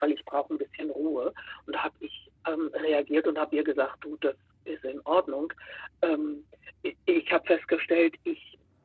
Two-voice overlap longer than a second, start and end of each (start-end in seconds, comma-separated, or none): none